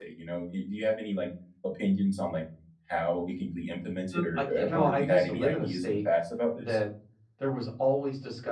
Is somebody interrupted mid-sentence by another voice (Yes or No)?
Yes